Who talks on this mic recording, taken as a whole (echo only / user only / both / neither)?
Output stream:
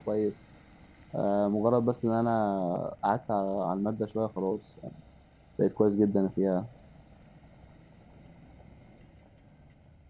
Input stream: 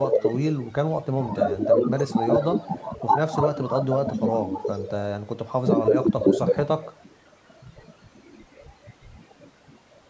both